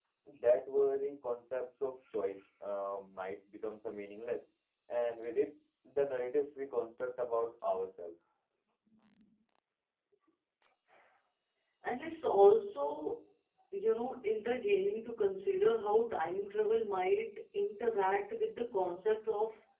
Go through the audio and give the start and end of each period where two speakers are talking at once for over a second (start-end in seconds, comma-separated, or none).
none